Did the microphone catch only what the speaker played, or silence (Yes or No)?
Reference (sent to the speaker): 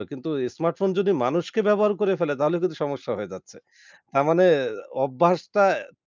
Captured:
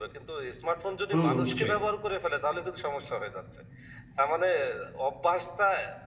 No